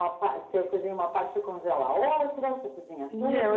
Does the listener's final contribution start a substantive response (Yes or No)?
Yes